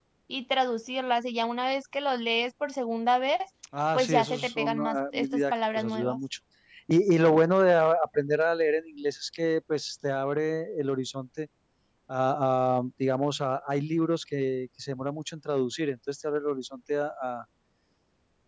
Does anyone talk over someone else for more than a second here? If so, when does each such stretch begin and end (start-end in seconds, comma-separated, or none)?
3.9-6.2